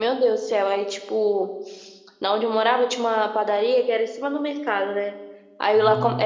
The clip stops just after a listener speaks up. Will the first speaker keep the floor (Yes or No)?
Yes